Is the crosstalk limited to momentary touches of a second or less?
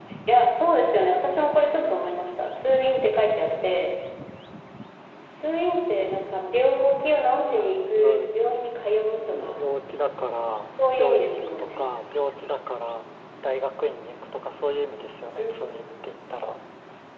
No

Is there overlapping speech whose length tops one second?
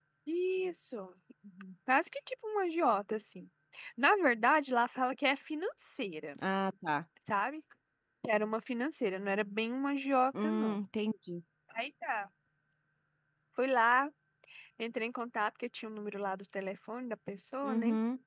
No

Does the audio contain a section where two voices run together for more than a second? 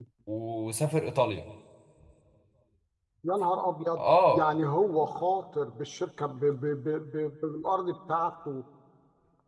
No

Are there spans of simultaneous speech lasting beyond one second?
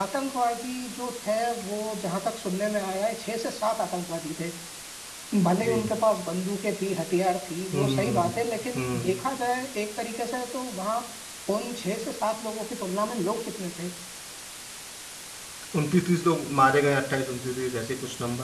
No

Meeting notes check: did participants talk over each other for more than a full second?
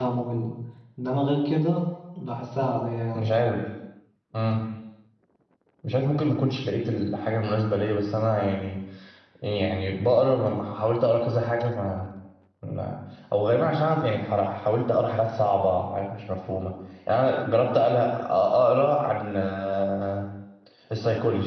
No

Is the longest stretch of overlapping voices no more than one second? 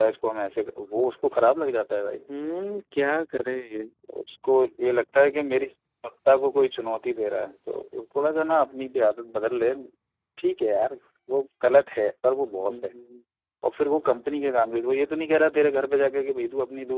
Yes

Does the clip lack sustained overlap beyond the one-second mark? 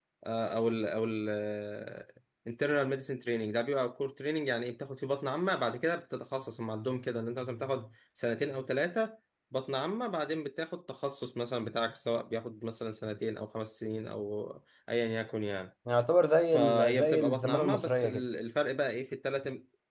No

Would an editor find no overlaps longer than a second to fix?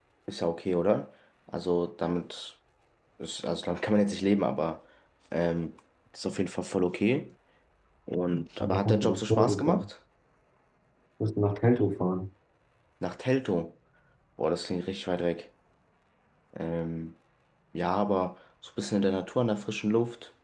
No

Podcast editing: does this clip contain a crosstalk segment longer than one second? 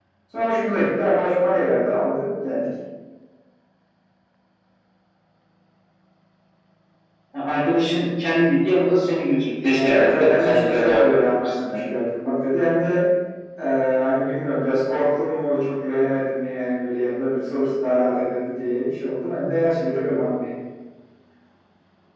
Yes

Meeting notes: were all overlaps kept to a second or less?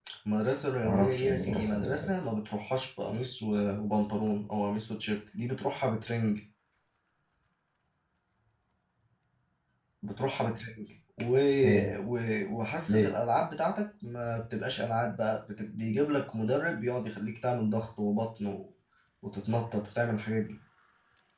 No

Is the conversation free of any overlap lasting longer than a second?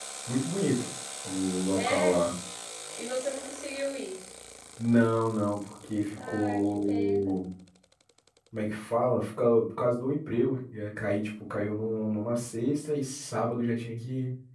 No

